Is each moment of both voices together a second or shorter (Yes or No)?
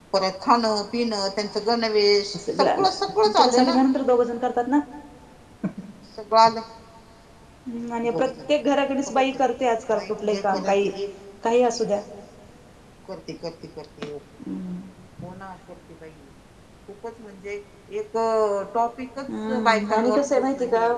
No